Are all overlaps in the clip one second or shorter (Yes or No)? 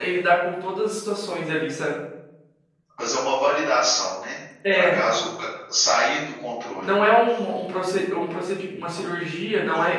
Yes